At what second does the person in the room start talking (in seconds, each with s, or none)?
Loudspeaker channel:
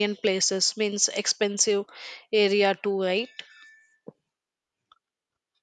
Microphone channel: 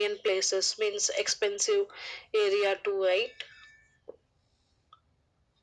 none